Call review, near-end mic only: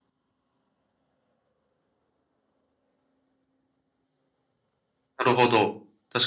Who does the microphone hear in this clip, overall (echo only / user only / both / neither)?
user only